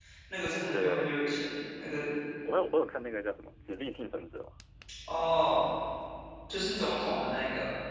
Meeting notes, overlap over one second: none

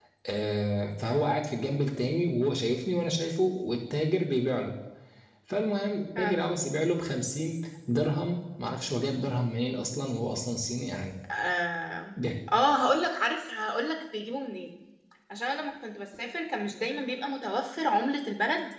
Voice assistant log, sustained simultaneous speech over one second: none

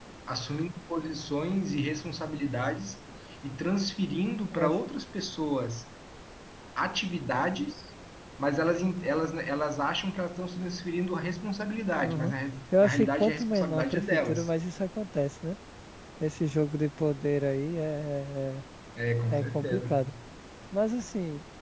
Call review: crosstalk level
present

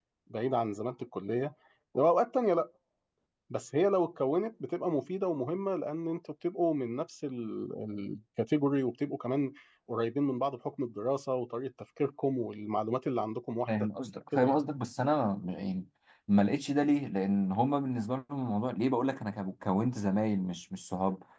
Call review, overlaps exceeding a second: none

